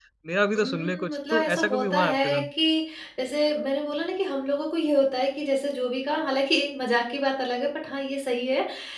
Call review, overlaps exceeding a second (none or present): present